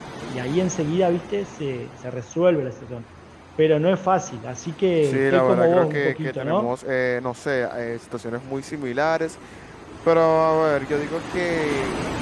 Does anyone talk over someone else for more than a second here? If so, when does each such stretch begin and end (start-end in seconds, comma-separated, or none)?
5.0-6.7